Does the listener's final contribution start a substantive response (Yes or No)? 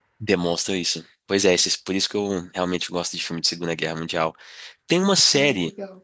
No